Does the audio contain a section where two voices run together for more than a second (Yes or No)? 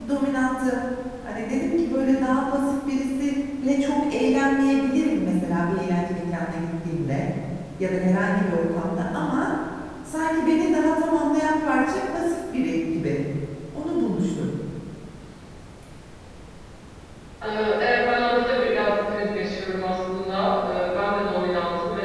No